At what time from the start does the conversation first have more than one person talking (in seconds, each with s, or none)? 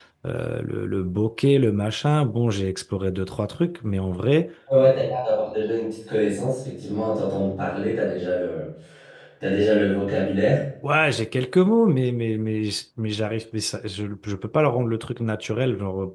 none